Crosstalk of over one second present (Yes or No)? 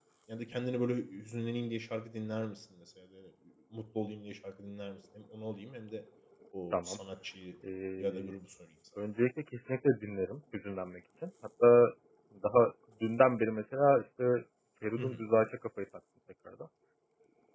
No